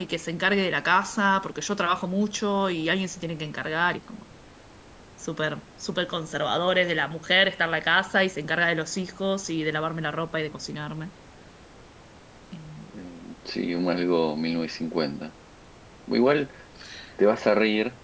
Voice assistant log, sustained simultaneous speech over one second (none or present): none